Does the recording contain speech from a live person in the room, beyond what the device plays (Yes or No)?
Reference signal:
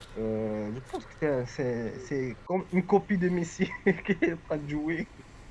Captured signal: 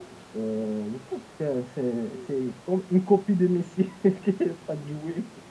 No